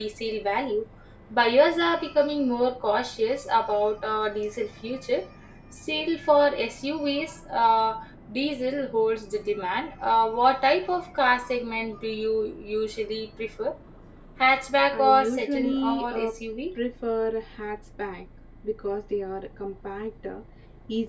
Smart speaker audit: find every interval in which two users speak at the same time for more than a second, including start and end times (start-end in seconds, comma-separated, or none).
14.9-16.3